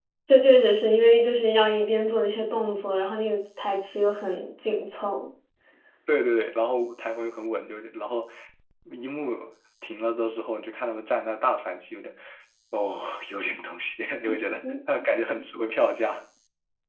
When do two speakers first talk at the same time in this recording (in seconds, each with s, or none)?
none